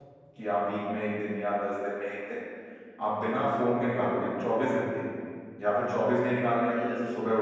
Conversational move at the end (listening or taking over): taking over